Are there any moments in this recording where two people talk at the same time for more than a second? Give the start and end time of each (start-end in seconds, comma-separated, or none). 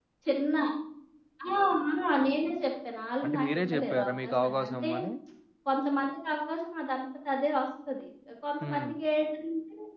3.2-4.9